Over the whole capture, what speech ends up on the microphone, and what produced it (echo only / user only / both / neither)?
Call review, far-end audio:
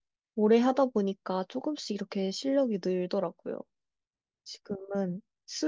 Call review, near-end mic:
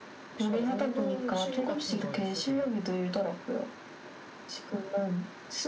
both